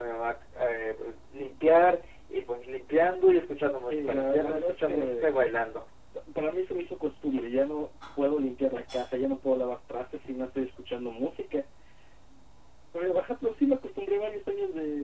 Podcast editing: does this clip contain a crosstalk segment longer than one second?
Yes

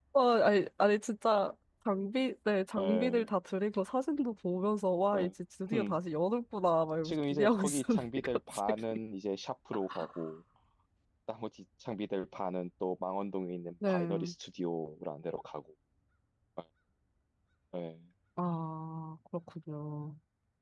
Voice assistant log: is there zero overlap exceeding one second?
No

